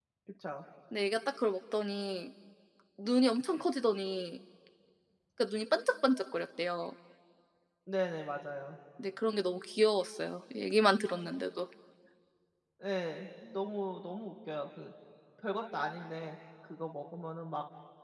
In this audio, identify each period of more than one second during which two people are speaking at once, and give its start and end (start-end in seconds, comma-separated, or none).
none